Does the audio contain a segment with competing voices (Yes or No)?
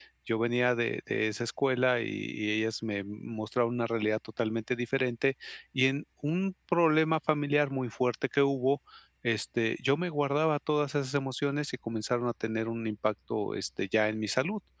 No